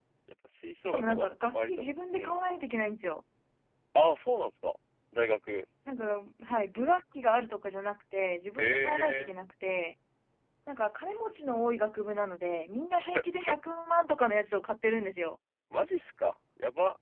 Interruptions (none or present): present